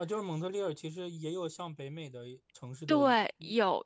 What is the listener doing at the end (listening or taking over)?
taking over